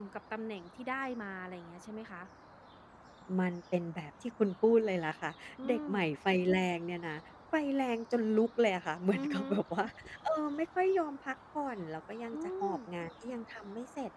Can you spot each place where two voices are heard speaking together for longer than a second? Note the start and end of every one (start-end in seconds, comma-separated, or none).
none